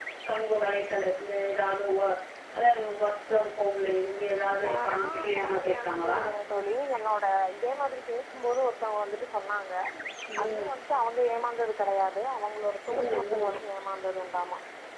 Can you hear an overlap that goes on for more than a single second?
Yes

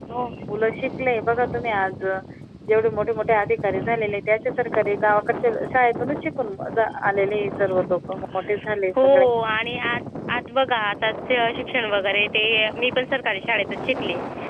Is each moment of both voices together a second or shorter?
Yes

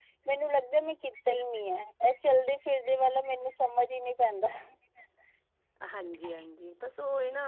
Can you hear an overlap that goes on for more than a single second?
No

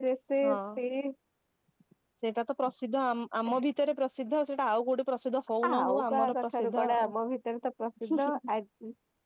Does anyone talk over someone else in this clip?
Yes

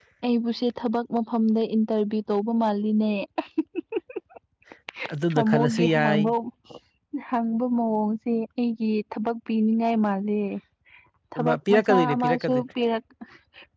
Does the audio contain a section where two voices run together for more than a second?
Yes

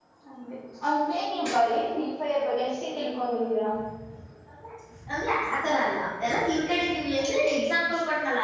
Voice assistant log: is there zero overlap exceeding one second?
Yes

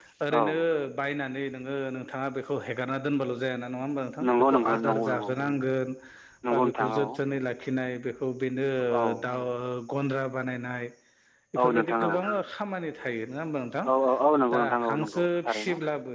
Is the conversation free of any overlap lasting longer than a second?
No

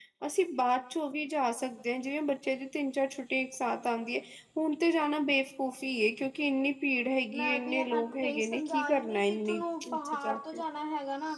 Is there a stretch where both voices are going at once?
Yes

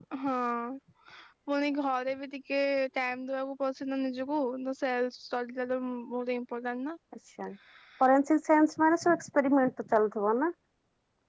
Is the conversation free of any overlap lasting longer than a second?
Yes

